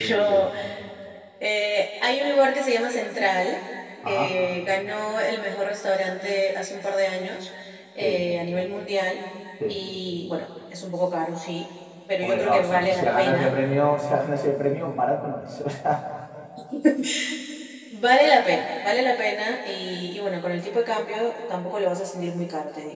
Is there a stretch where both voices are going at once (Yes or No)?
Yes